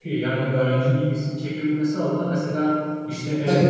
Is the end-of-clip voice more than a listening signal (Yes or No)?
No